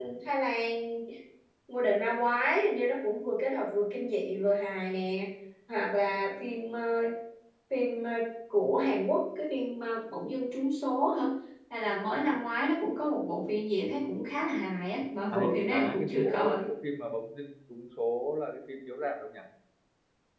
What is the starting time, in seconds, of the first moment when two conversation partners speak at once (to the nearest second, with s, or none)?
15 s